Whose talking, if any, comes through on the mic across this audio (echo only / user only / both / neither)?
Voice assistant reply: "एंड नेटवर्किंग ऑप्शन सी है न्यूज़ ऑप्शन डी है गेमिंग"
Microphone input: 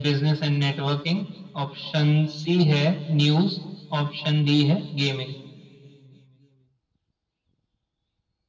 echo only